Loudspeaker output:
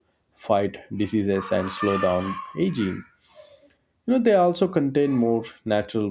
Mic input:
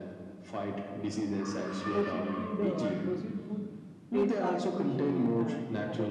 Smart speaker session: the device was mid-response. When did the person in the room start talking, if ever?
1.9 s

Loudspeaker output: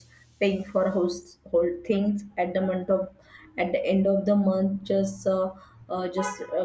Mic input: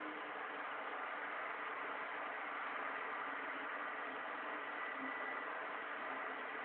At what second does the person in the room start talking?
none

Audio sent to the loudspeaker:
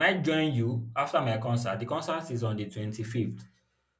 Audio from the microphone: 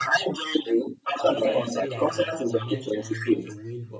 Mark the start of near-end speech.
1.2 s

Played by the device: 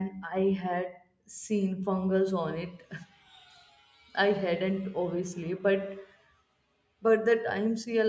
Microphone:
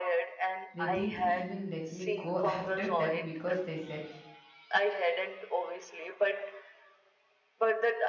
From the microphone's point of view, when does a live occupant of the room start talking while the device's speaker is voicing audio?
0.7 s

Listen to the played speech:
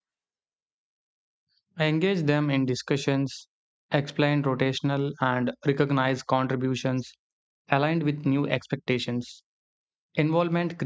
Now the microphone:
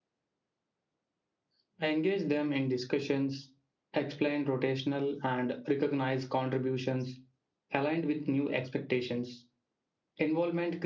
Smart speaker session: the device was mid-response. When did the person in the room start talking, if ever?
none

